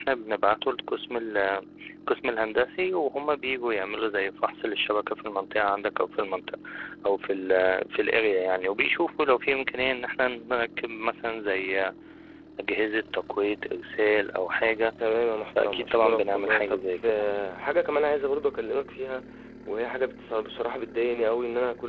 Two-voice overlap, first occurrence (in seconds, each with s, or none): 15.6 s